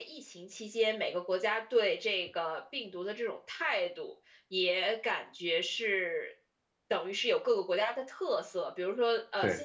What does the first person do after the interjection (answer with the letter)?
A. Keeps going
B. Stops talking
A